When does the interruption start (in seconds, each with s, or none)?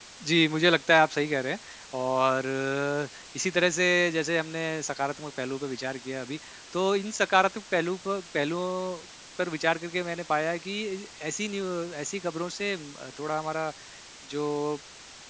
none